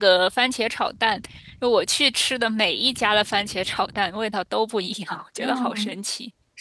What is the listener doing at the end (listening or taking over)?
taking over